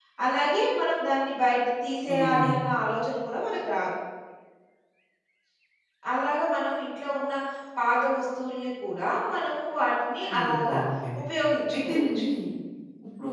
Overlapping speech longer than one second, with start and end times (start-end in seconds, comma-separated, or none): none